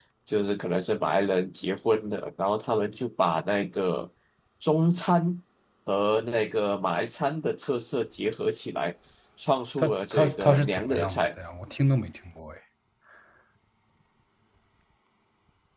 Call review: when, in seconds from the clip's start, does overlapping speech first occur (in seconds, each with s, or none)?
9.8 s